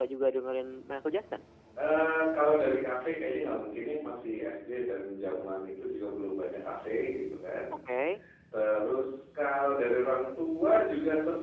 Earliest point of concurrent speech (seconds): none

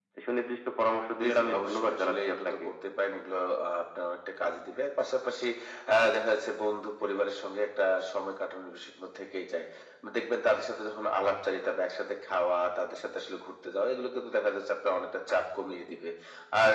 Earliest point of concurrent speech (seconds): 1.2 s

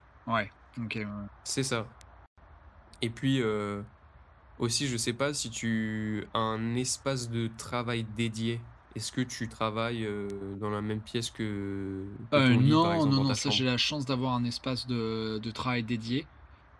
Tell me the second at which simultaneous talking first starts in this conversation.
12.3 s

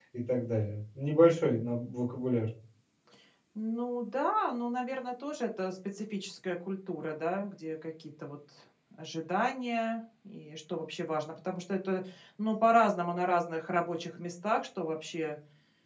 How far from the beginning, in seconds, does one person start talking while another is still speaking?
none

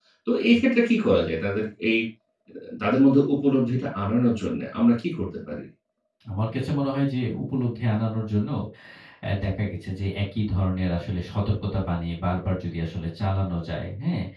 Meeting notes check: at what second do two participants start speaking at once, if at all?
none

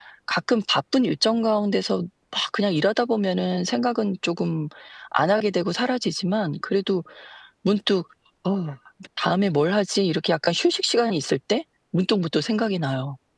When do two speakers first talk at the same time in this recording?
none

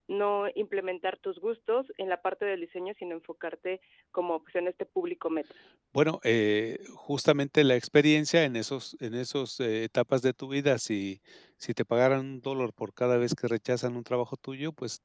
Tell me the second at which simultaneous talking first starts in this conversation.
none

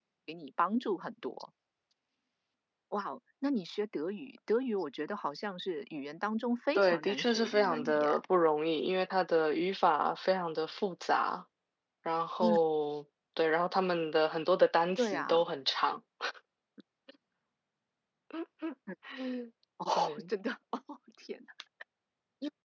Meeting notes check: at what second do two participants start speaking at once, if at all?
6.8 s

